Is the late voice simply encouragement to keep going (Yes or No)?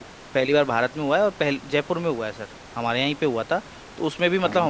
Yes